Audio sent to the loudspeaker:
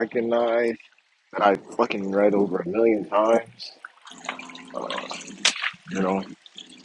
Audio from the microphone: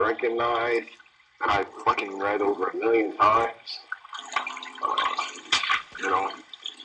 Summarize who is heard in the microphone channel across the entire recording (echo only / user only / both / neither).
echo only